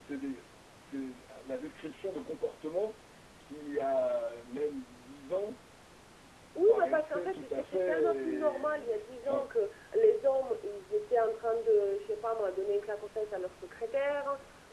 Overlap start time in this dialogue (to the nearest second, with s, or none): 7 s